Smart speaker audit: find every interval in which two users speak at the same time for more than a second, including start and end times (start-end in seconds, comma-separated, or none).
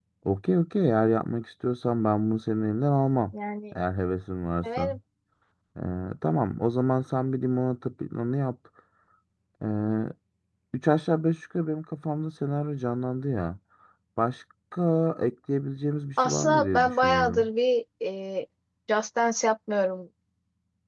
16.2-17.5